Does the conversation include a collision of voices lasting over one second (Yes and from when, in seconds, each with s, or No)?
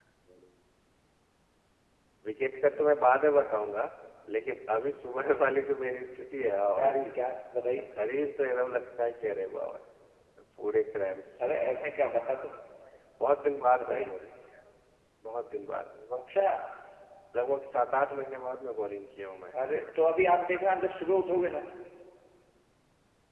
No